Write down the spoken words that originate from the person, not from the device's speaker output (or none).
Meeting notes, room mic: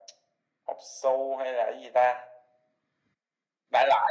none